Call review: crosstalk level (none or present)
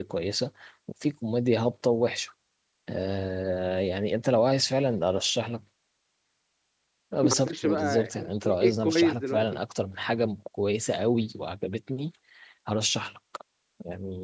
present